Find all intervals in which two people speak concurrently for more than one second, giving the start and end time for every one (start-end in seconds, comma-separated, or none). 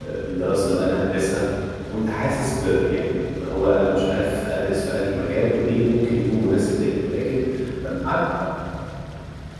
none